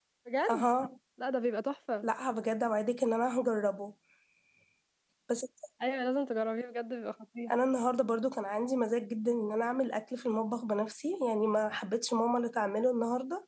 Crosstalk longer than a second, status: none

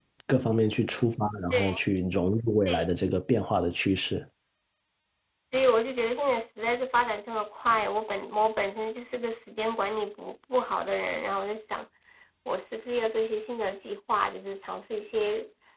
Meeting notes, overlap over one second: none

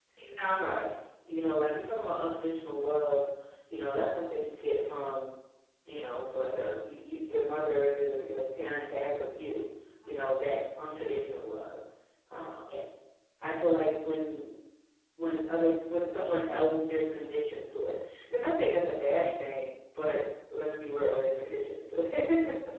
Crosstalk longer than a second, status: none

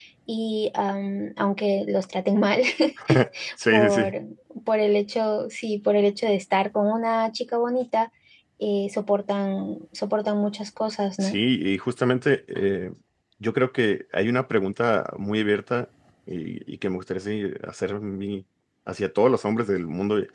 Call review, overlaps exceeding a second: none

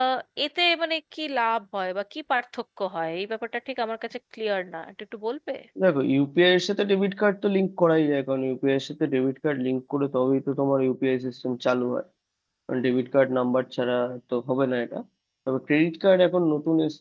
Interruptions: none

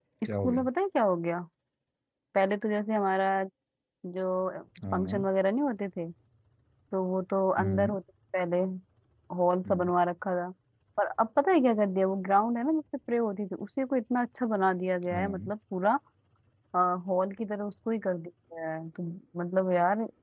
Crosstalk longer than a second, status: none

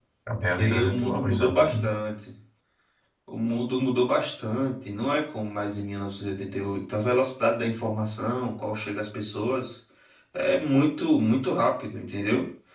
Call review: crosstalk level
present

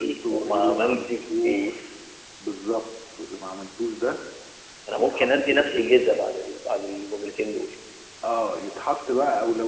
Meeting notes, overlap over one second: present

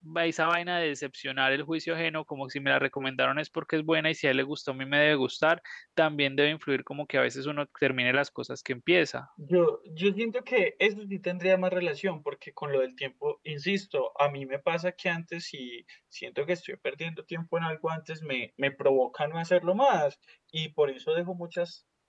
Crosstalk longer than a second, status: none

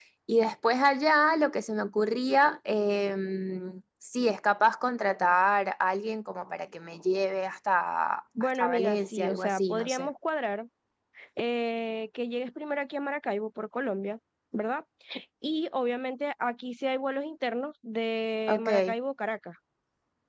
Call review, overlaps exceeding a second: present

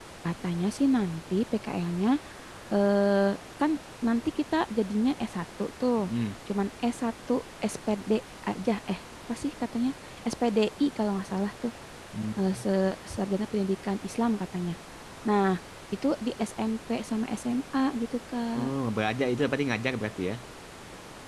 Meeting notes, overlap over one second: none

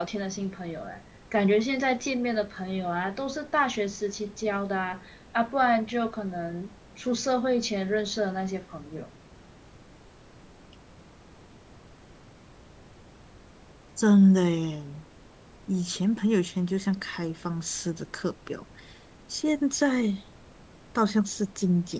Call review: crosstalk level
none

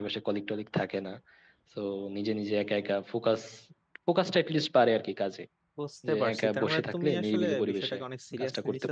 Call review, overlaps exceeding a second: present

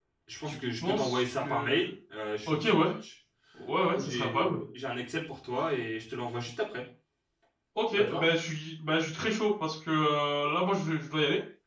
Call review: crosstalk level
present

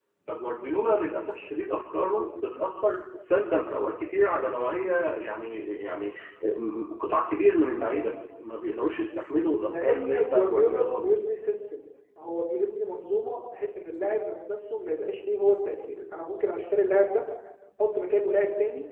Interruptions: present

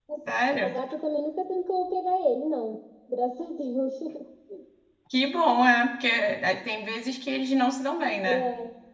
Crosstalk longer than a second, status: none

